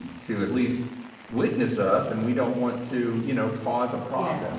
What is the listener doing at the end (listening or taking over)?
listening